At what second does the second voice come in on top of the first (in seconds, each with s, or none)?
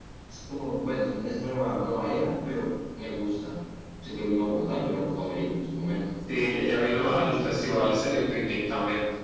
6.8 s